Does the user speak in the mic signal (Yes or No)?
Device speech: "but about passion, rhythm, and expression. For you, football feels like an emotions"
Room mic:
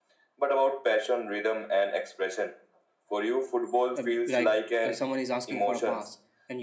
Yes